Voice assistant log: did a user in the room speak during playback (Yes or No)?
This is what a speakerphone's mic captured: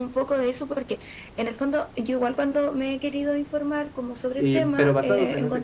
Yes